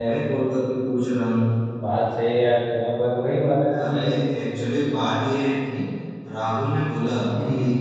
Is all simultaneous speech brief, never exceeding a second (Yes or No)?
Yes